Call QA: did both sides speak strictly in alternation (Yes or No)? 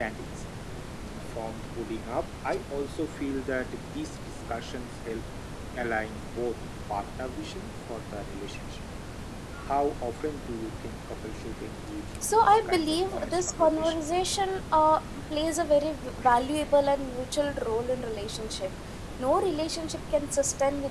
No